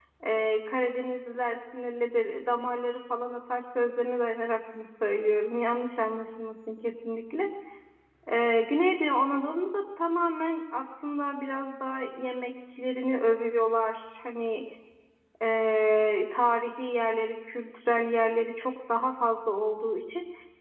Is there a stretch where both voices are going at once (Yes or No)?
No